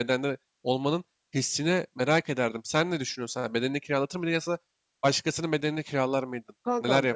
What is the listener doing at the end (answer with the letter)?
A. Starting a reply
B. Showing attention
A